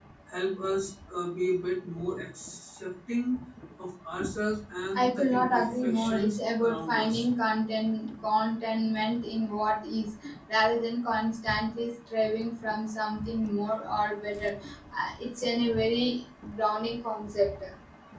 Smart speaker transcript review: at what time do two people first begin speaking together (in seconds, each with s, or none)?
5.0 s